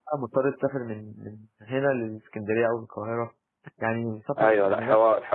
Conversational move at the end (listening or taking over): taking over